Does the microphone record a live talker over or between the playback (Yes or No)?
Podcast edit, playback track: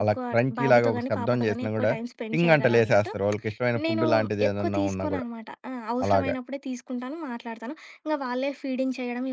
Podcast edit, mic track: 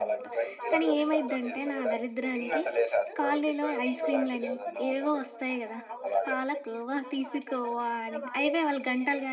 Yes